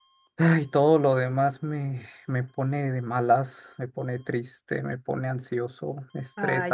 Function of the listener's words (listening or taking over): taking over